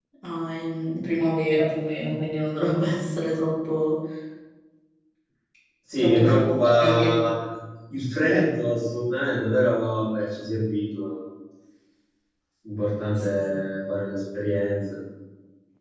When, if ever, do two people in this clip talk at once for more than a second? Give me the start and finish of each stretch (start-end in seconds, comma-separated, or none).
6.0-7.2